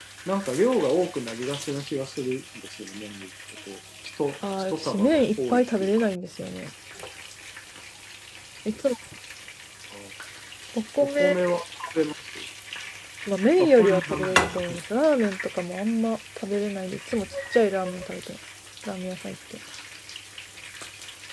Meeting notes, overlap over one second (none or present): present